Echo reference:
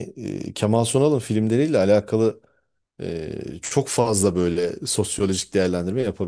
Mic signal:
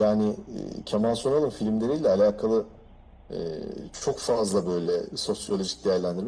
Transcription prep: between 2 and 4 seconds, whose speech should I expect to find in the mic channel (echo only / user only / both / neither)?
echo only